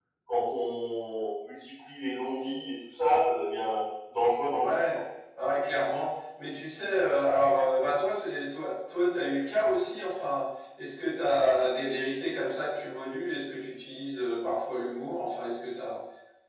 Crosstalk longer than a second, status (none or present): none